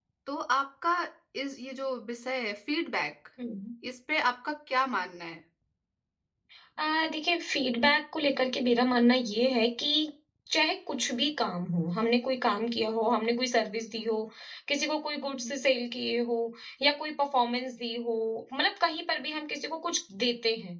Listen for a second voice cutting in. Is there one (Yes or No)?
No